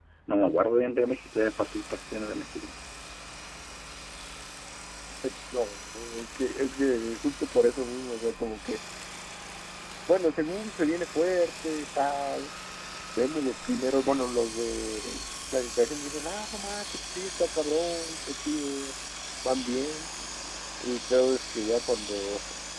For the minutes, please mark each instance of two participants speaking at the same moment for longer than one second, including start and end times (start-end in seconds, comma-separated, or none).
none